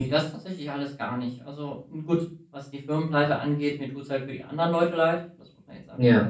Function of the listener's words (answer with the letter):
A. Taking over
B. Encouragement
B